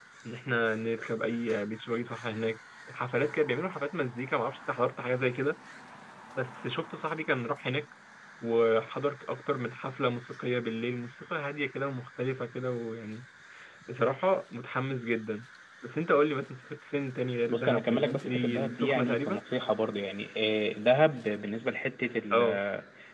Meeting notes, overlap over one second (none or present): present